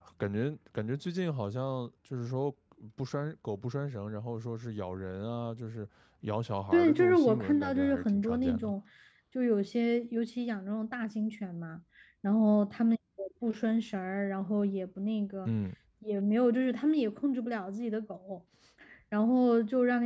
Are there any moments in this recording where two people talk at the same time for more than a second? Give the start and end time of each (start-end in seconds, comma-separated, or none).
6.7-8.7